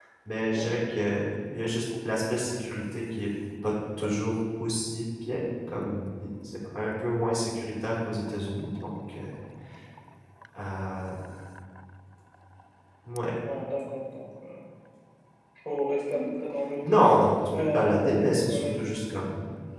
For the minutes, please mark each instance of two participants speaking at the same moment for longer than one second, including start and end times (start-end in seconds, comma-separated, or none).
16.9-18.9